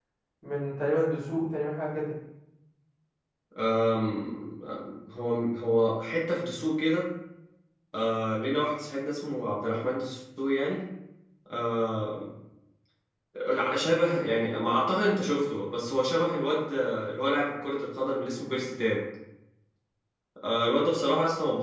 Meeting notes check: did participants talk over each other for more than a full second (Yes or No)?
No